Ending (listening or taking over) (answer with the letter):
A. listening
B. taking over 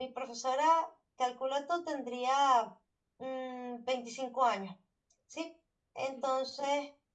A